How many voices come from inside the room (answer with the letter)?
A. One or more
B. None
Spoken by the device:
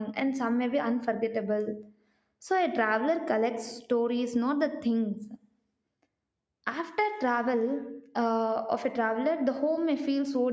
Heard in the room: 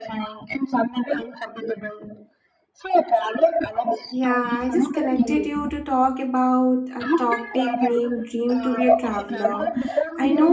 A